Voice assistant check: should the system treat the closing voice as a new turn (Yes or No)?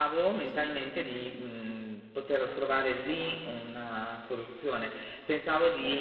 Yes